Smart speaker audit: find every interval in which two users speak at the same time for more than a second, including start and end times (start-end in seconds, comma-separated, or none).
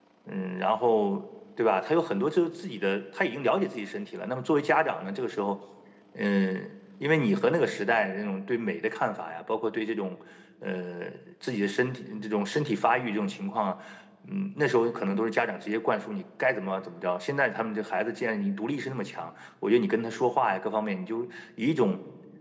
none